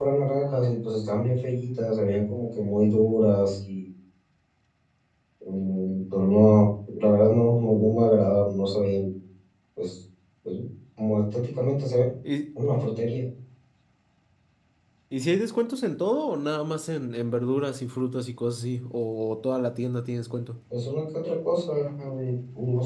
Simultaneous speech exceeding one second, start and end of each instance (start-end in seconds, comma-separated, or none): none